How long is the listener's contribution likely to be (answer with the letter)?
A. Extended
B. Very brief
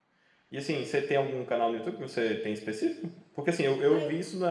B